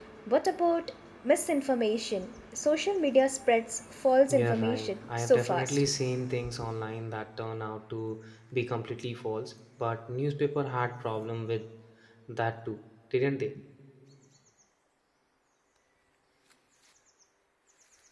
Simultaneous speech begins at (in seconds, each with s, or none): 4.3 s